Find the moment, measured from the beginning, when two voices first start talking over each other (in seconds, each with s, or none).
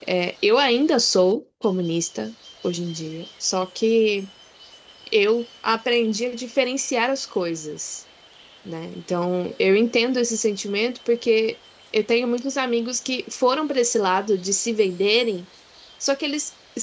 none